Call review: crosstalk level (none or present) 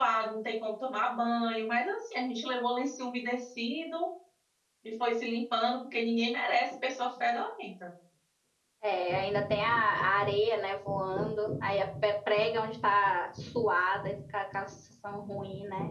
none